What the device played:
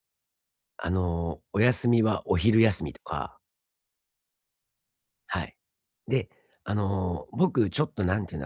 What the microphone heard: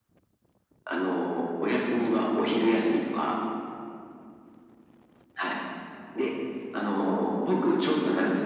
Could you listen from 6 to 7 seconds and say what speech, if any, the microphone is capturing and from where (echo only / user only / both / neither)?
echo only